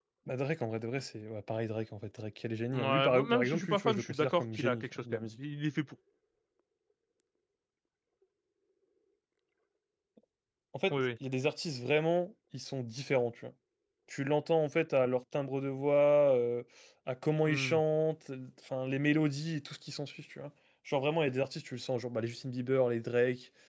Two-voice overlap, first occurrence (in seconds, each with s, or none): 2.7 s